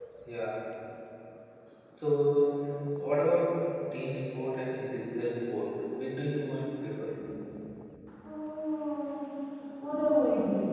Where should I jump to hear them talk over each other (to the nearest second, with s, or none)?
none